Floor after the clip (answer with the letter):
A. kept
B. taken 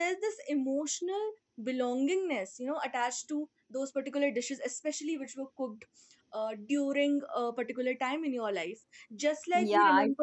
B